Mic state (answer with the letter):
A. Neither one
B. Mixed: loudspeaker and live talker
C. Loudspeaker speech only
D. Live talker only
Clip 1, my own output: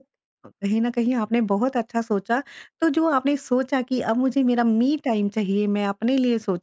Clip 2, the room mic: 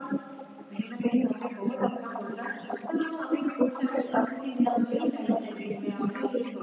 C